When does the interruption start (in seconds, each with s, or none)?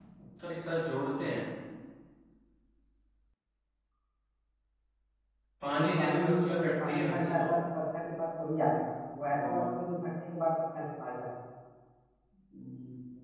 5.7 s